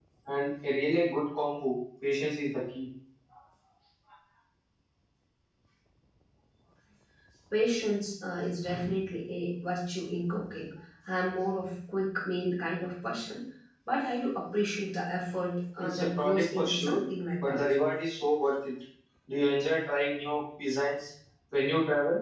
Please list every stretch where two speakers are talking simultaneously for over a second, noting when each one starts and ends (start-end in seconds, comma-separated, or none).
15.8-17.0